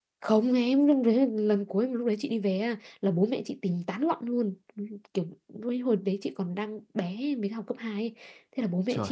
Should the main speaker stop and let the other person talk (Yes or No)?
No